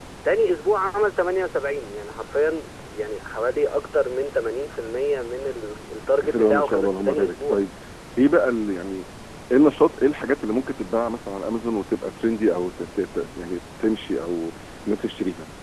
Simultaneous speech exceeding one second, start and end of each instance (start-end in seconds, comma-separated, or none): 6.2-7.6